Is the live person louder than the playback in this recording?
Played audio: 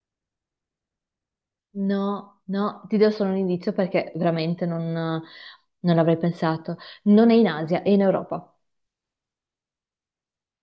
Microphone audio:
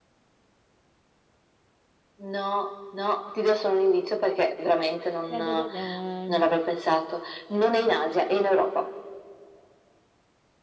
No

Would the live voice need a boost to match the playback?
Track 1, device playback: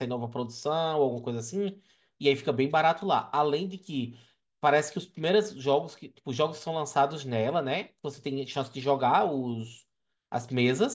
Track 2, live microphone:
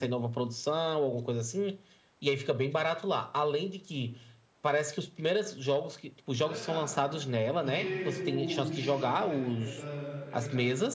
Yes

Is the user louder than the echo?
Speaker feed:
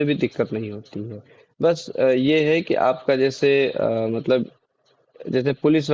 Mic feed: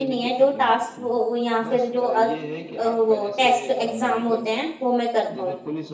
Yes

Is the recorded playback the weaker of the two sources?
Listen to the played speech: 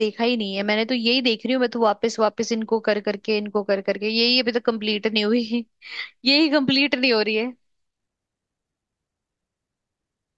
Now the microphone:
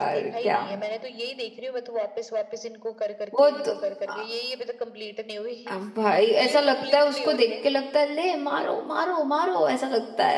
Yes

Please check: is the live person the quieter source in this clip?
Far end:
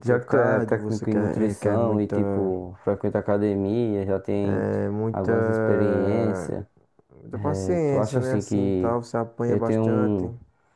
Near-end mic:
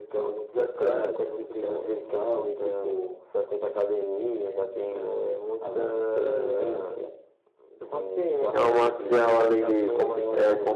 No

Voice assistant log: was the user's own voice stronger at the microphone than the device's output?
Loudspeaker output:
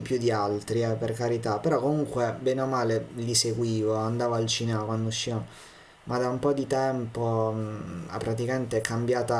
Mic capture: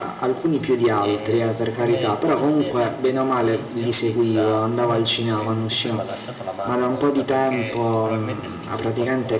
No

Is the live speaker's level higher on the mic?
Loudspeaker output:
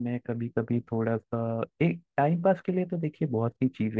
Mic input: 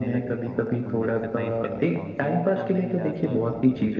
No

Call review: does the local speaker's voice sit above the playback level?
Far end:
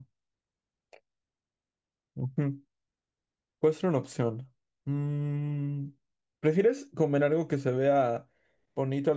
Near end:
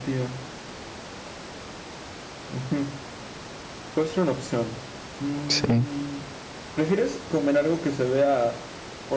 Yes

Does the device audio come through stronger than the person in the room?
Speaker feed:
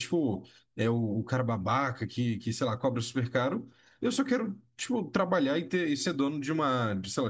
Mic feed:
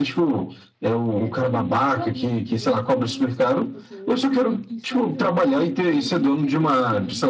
Yes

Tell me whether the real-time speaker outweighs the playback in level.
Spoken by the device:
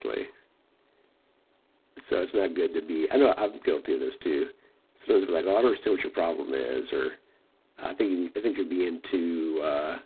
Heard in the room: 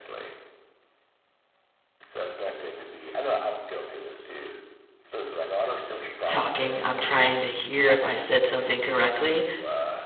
Yes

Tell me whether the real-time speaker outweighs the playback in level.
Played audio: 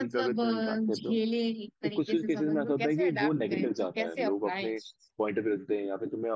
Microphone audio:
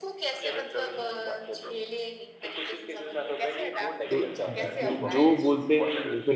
Yes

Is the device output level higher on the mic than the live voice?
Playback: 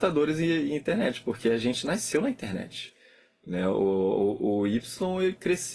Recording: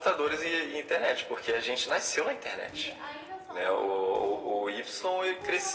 Yes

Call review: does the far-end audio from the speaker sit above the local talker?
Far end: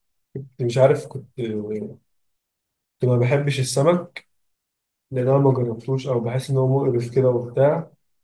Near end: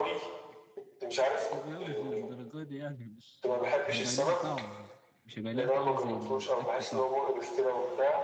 Yes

